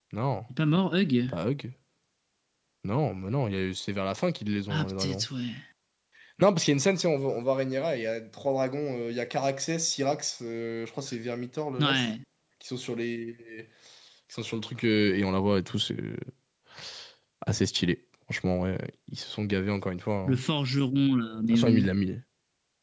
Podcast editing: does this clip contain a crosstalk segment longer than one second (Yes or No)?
No